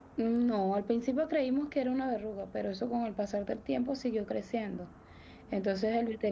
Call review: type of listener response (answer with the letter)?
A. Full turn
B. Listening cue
B